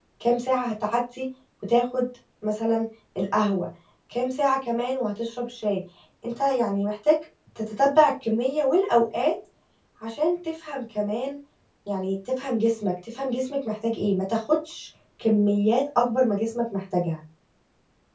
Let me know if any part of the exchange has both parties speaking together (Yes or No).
No